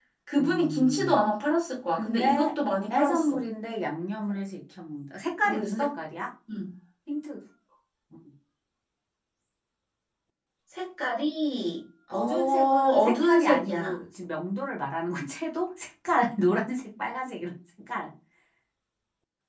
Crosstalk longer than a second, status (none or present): present